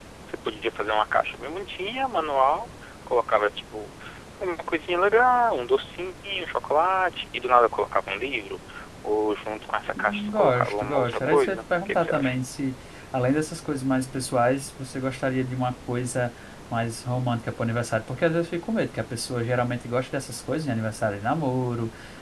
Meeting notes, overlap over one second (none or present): present